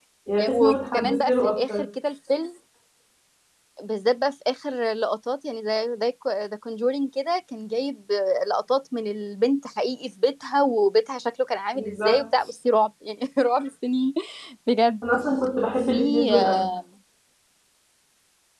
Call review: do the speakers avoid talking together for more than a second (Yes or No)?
No